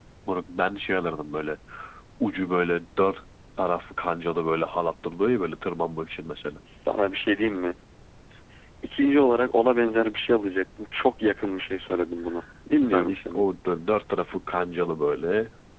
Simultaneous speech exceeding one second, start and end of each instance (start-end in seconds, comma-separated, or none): none